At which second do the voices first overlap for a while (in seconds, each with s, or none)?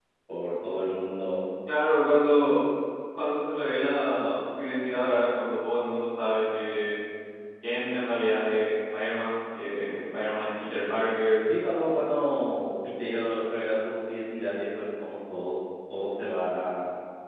none